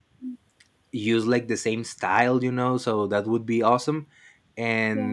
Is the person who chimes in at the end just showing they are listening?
Yes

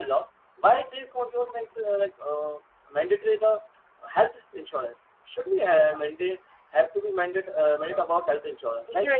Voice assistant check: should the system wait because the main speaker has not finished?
No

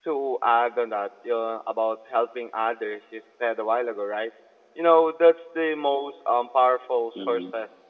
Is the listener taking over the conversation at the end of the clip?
No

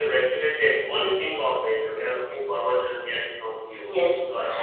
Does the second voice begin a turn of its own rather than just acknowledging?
Yes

